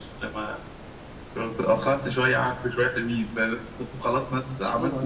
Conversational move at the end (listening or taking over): taking over